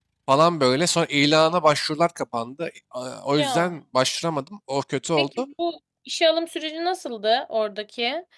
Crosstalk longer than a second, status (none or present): none